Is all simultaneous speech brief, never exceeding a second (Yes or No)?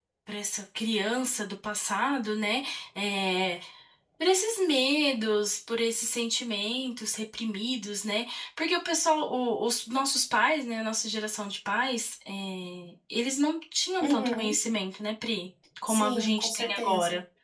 No